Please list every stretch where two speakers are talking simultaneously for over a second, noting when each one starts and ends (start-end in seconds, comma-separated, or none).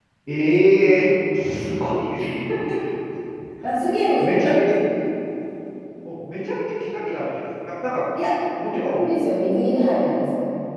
none